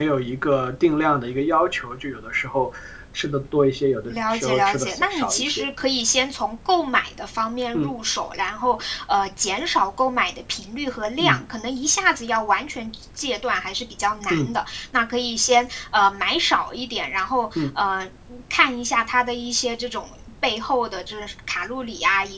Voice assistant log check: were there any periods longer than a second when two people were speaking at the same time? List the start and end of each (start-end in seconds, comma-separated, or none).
4.1-5.7